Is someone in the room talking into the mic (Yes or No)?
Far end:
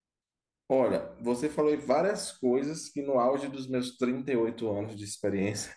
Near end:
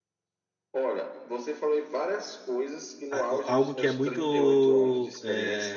Yes